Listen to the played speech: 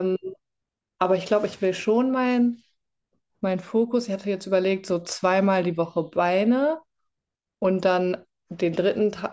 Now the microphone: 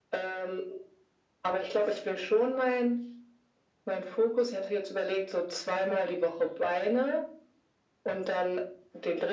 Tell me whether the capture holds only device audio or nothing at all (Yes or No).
Yes